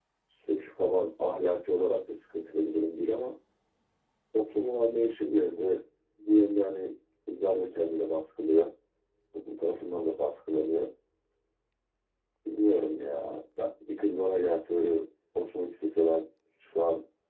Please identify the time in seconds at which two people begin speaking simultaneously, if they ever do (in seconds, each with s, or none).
none